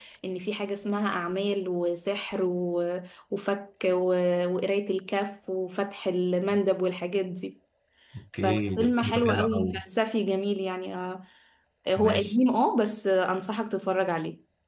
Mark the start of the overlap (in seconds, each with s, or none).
8.4 s